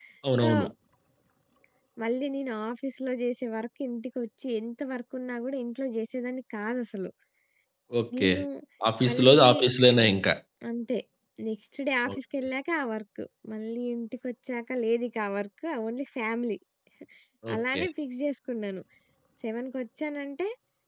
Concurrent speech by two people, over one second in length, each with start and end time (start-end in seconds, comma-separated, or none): none